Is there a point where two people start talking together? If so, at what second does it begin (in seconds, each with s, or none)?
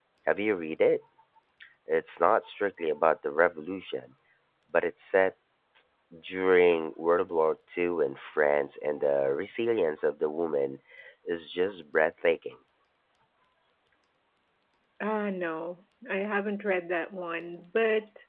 none